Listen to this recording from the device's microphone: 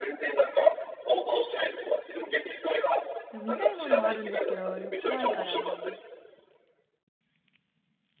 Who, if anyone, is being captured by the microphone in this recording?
both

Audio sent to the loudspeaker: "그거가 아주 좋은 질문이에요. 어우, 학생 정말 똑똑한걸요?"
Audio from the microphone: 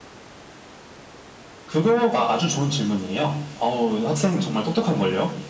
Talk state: echo only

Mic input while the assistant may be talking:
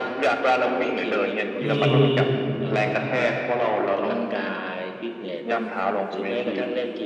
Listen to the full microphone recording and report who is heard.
both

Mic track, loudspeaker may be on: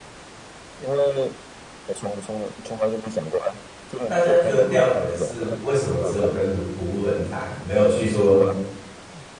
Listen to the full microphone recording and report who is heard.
both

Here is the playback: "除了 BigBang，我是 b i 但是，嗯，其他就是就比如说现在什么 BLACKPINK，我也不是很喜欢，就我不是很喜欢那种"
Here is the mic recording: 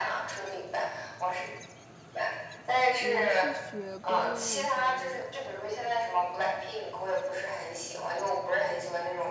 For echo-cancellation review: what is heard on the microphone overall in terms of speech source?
both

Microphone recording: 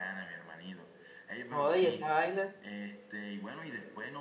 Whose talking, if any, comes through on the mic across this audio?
both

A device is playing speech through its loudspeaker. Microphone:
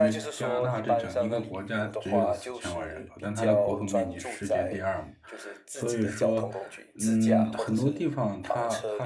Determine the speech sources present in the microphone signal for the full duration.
both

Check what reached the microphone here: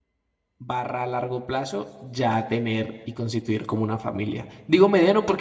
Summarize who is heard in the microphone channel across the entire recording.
user only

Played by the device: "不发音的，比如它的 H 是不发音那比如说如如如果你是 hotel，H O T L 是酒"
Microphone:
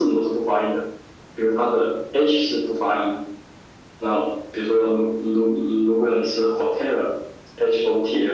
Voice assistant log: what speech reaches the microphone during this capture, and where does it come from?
echo only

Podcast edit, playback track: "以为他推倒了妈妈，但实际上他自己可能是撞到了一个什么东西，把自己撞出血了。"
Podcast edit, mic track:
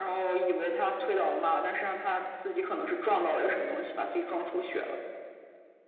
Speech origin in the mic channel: echo only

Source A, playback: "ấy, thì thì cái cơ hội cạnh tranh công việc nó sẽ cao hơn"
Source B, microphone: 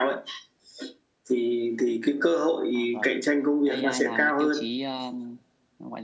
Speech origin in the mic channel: both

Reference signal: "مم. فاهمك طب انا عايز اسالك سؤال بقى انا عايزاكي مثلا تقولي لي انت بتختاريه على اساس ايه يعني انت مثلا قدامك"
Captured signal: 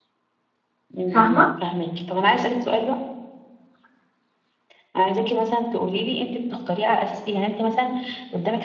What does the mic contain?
both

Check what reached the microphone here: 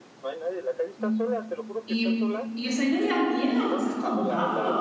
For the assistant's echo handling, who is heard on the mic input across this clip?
both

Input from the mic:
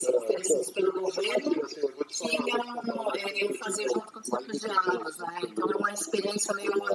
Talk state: echo only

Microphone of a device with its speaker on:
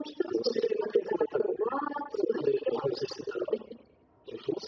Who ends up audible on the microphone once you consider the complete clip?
echo only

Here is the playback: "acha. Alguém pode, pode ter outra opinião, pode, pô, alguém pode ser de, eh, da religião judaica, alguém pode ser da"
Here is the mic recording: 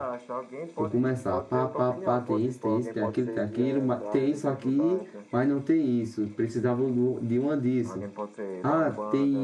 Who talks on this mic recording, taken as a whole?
both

